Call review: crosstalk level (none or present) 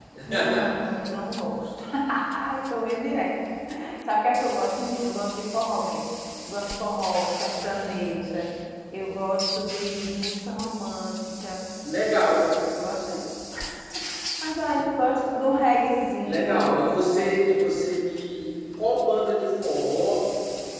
present